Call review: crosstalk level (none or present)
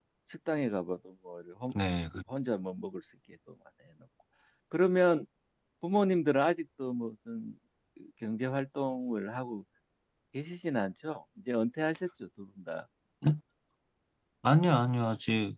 none